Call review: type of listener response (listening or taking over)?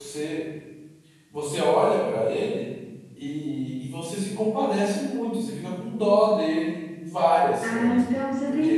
taking over